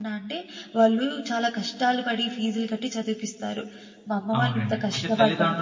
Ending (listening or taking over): taking over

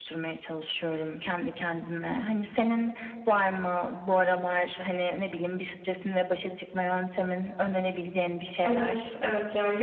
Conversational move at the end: taking over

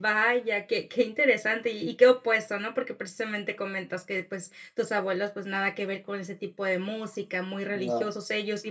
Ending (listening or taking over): listening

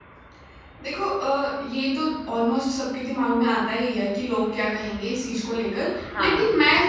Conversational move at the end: listening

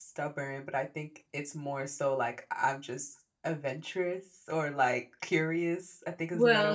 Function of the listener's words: taking over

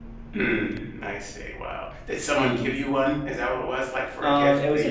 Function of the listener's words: taking over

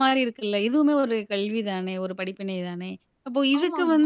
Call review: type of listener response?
listening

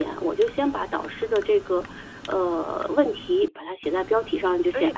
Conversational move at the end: listening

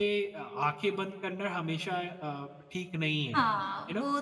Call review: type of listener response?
taking over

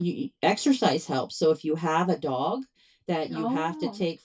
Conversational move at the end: listening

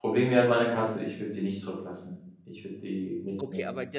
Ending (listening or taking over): taking over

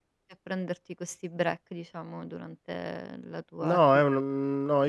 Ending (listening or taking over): taking over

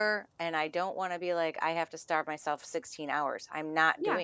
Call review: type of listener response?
taking over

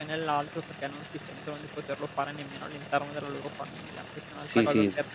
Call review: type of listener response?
taking over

